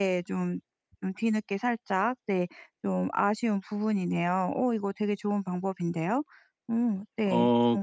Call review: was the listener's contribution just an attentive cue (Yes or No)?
No